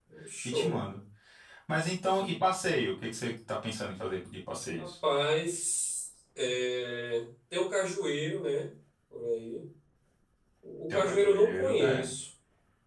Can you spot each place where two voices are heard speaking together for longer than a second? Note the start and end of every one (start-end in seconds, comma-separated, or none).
10.9-12.1